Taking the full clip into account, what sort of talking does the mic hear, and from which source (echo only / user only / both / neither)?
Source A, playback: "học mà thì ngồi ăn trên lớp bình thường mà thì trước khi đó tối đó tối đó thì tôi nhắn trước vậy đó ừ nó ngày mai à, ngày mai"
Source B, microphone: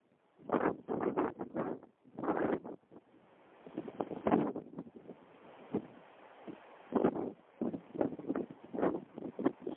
neither